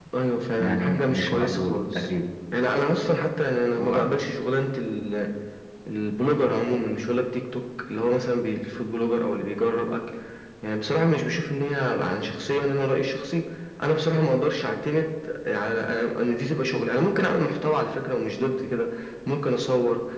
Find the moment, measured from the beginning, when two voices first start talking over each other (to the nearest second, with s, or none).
1 s